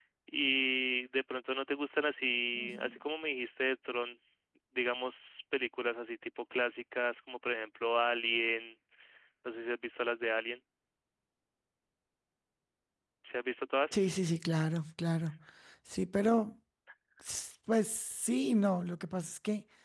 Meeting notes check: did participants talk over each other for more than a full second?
No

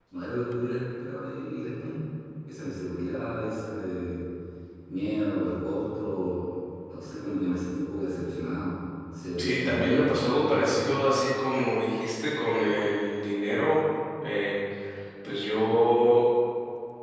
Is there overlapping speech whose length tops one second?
Yes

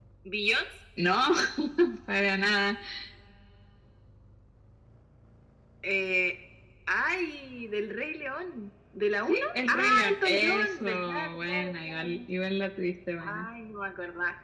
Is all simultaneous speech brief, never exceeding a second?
No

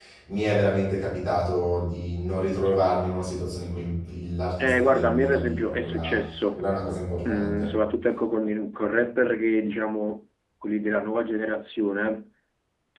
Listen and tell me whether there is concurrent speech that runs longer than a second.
Yes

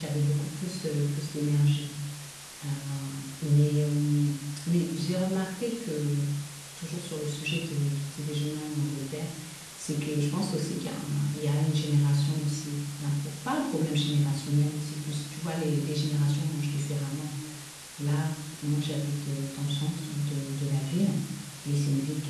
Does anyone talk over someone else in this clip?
No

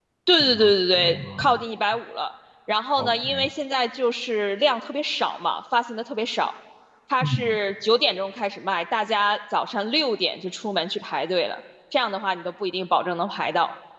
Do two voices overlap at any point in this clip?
Yes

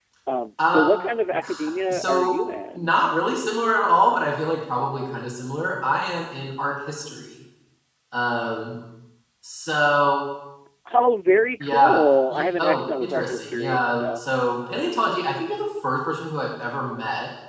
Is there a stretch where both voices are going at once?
Yes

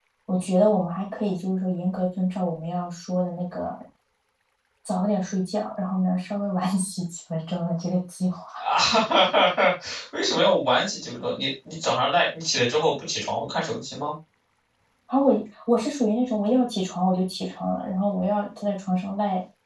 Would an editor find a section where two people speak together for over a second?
No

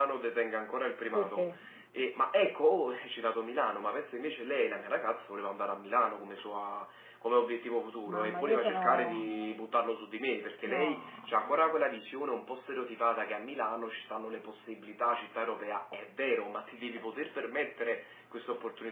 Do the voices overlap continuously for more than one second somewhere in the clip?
Yes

